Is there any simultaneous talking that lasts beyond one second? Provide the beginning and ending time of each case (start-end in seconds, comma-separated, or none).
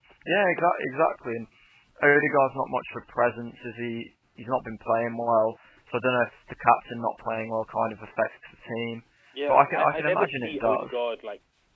9.5-11.0